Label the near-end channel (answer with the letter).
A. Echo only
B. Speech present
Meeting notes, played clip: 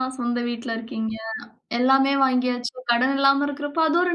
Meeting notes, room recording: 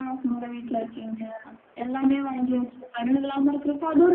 A